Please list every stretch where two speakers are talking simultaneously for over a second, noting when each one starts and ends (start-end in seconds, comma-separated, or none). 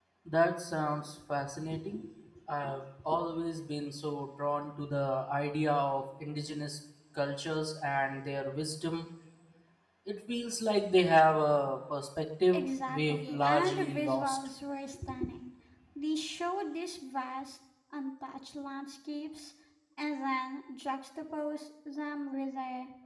12.5-14.4